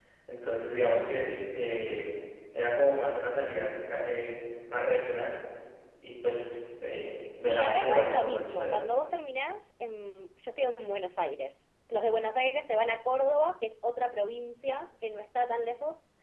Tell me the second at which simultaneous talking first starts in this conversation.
7.4 s

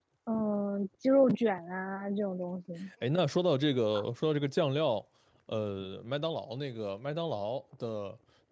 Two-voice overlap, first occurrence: none

